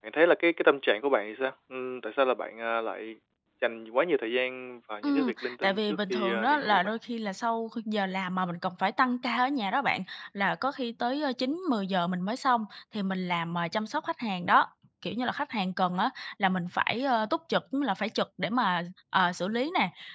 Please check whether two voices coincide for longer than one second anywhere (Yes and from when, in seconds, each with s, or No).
Yes, from 5.0 s